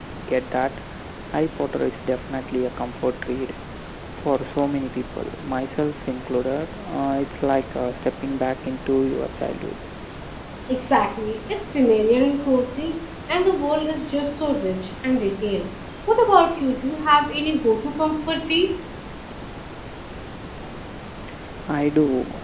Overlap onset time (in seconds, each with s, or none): none